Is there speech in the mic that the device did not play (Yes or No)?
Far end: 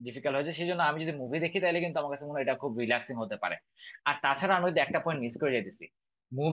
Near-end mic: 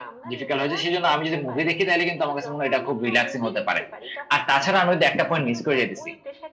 Yes